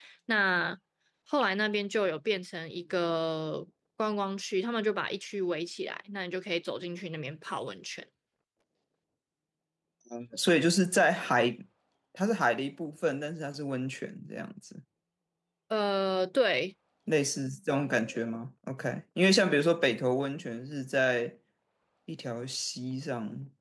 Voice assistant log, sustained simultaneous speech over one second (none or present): none